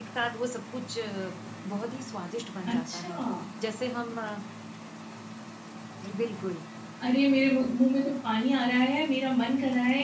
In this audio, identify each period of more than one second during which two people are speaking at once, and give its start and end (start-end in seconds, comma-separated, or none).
none